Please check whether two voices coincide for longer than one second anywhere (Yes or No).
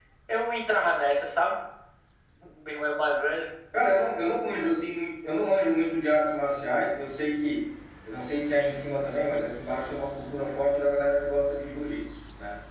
No